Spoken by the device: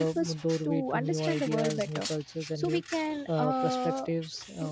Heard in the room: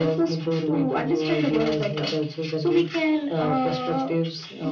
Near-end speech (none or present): none